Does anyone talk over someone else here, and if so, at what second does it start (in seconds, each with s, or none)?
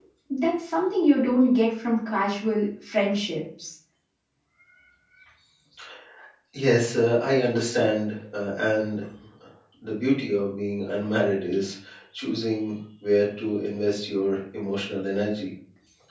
none